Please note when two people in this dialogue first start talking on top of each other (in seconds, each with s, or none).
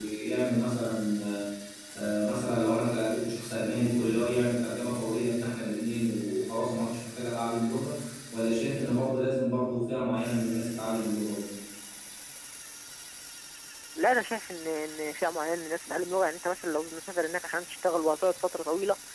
none